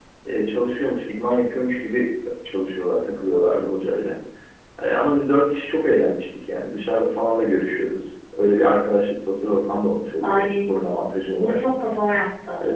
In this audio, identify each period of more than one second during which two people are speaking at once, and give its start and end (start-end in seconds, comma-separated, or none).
none